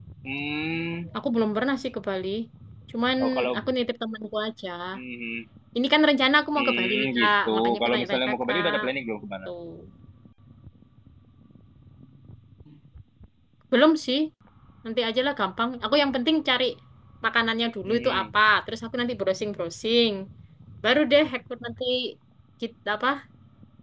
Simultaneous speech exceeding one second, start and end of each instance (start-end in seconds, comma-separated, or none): 6.6-8.8